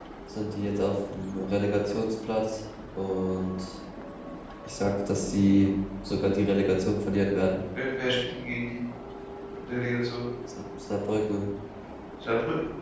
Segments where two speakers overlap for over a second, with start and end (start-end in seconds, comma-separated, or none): none